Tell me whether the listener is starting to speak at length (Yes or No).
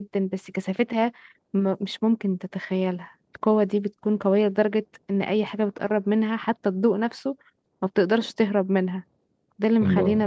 No